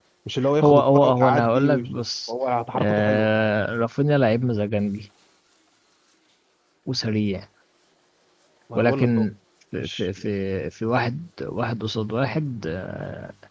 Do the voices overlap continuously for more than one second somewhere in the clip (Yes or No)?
Yes